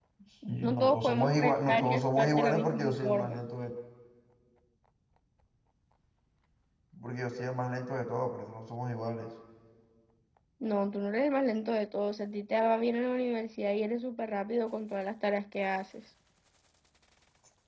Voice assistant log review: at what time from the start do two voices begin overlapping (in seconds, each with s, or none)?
0.6 s